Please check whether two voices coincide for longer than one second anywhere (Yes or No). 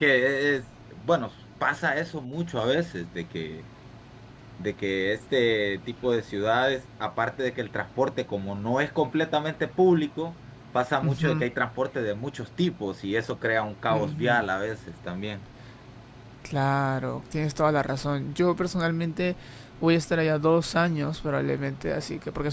No